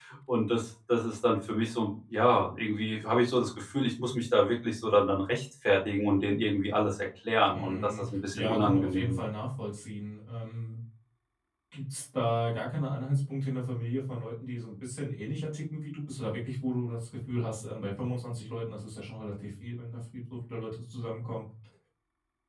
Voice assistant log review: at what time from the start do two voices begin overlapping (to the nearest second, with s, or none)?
8 s